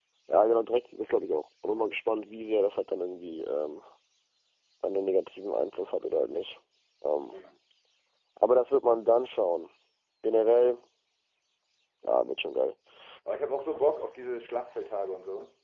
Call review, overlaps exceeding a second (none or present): none